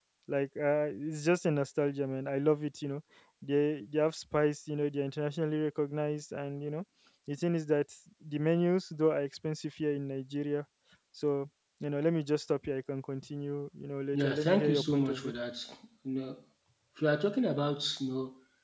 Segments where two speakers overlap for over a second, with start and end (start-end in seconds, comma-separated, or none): 14.1-15.3